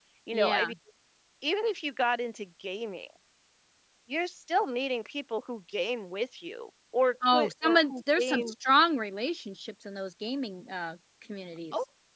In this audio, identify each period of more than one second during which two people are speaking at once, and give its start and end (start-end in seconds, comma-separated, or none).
7.2-8.5